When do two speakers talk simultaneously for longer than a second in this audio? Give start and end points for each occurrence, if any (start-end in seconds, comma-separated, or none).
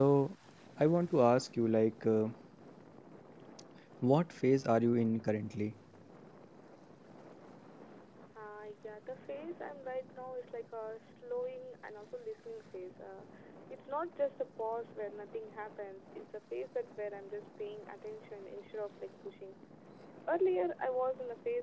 none